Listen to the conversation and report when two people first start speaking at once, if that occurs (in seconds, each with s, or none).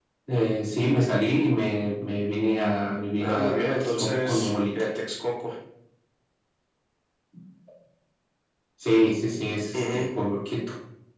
3.2 s